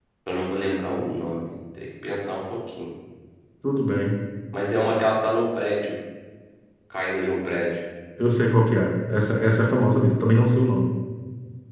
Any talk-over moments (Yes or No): No